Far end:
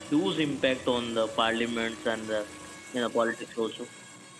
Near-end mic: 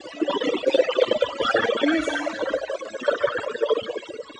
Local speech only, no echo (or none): Yes,